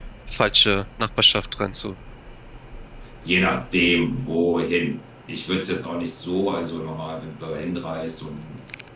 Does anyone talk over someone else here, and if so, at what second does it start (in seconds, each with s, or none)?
none